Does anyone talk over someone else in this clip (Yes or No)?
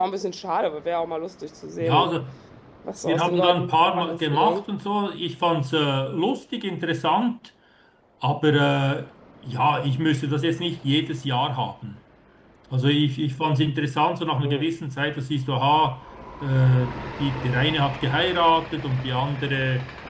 Yes